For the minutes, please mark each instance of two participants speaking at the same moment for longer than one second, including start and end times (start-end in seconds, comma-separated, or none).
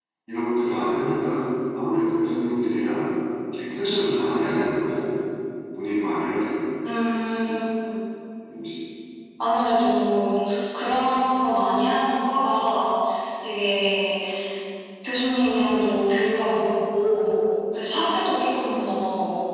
none